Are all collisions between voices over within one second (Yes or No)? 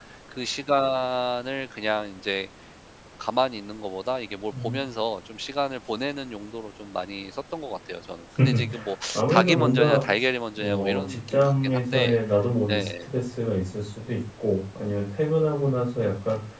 No